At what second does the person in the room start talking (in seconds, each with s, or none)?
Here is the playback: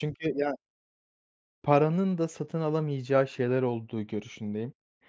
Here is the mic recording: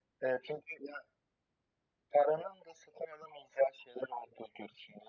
none